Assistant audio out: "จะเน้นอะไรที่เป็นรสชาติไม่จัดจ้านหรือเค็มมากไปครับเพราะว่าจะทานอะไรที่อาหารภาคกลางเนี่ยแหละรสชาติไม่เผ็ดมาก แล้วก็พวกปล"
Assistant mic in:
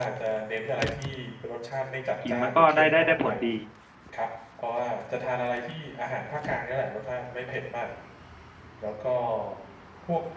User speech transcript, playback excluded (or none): กินมันก็ได้ได้ได้ผลดี